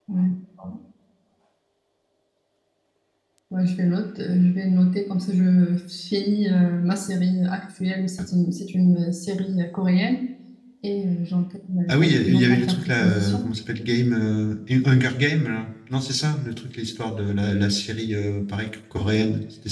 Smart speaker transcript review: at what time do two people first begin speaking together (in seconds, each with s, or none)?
11.9 s